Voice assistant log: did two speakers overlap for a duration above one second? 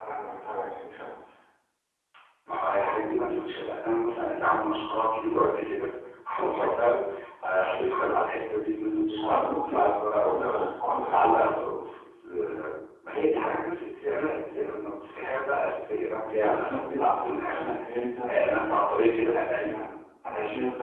Yes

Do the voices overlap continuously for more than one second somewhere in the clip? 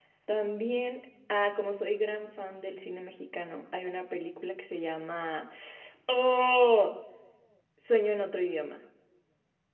No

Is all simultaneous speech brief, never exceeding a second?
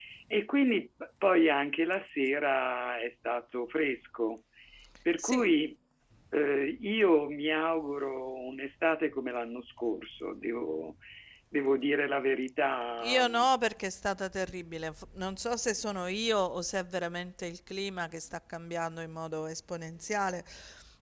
Yes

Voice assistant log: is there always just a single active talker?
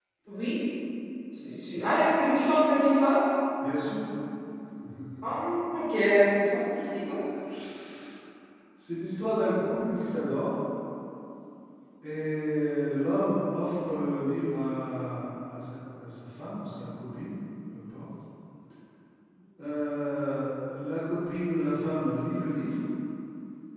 Yes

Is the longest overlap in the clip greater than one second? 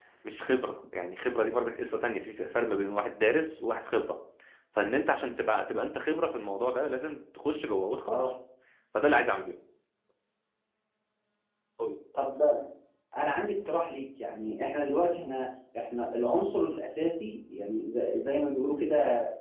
No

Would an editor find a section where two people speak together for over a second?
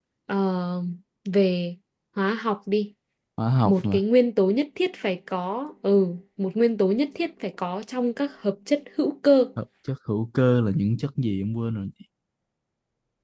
No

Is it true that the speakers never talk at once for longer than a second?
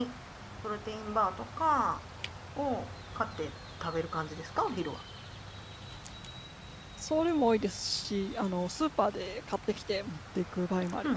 Yes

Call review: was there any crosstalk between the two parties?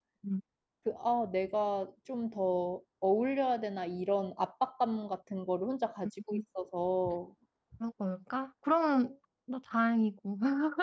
No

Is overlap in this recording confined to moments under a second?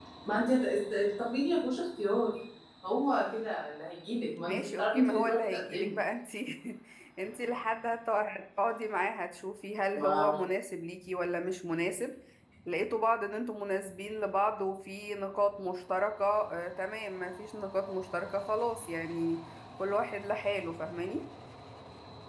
No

